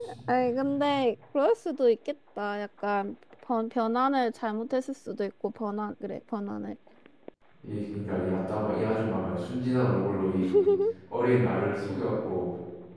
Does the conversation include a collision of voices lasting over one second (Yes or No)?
No